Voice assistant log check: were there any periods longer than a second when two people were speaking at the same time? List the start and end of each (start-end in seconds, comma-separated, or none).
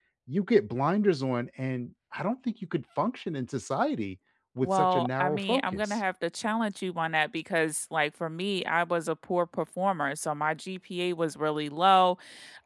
4.6-6.0